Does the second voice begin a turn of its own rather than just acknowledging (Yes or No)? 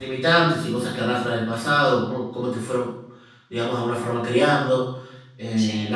No